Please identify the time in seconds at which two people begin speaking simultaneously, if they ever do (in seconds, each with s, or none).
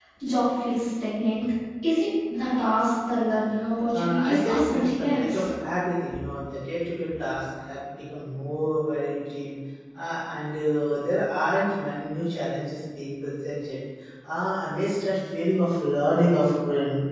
3.9 s